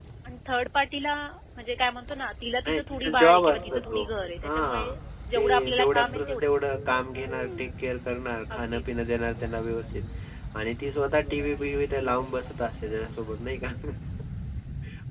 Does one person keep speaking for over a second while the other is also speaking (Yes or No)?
Yes